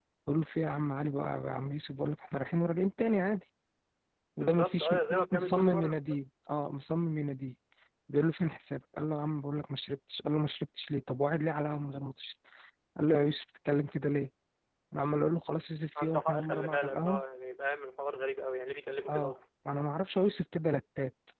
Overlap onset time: 4.4 s

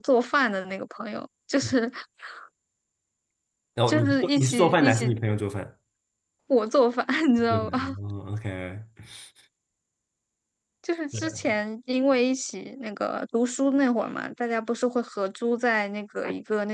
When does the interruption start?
3.9 s

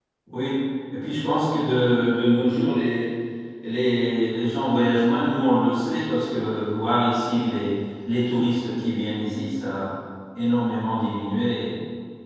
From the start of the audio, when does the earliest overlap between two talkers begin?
none

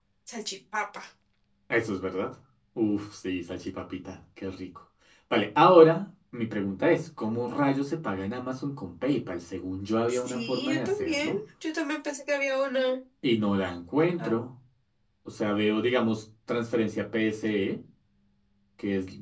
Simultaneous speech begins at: 10.1 s

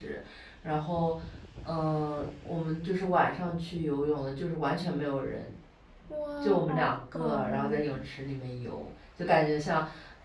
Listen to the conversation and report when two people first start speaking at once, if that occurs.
6.4 s

